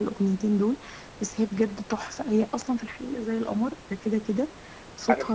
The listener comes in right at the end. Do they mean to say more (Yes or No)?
No